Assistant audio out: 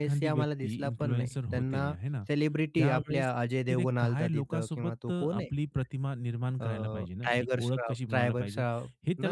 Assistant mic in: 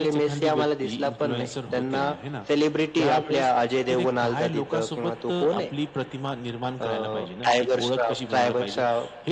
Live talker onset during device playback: none

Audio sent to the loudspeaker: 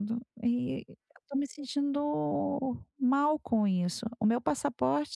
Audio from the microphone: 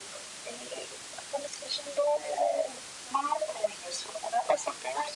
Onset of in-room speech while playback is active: none

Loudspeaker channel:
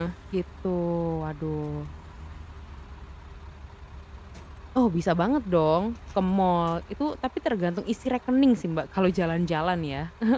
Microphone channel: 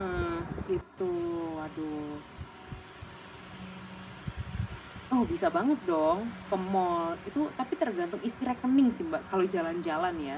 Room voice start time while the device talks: none

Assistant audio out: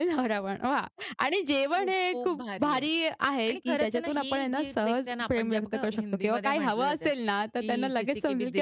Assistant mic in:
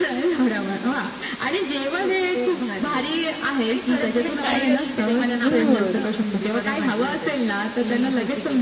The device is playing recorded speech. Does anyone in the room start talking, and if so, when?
4.2 s

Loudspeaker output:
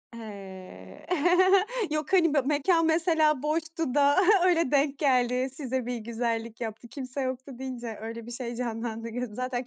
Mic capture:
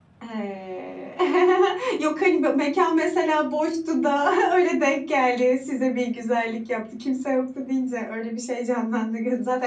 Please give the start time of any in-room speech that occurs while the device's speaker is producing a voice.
none

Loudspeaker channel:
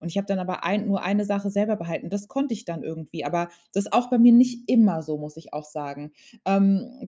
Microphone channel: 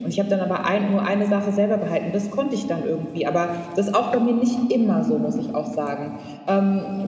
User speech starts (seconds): none

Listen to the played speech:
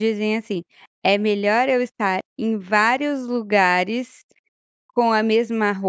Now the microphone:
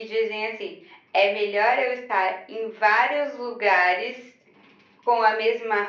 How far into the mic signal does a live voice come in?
none

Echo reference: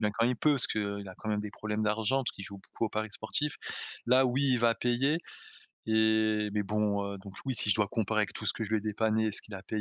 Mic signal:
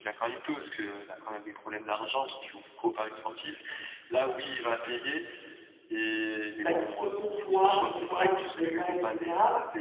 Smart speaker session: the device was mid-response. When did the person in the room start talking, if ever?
6.6 s

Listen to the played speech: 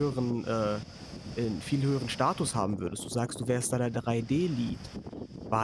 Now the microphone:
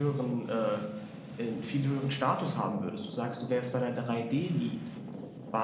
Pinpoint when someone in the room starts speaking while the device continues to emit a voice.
none

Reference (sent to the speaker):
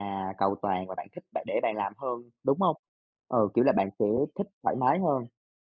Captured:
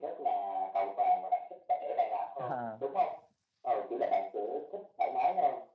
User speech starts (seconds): 2.4 s

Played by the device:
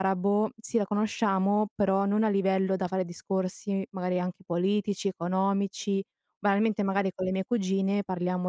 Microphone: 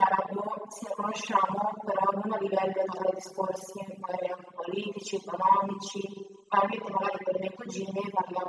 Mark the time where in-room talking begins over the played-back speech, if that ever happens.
none

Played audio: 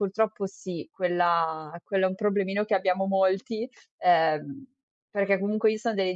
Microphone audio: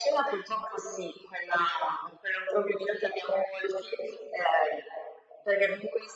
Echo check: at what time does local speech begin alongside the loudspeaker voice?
none

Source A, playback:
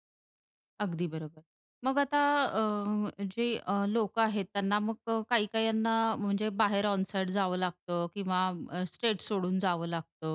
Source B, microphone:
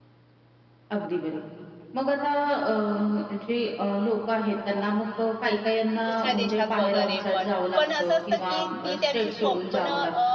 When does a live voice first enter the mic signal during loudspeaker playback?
6.0 s

